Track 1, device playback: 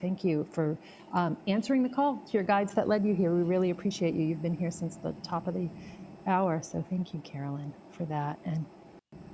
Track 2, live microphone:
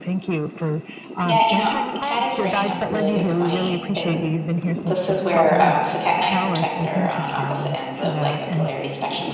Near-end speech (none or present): present